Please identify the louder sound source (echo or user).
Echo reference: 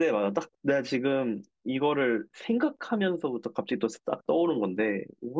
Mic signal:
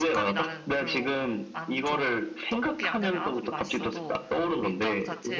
echo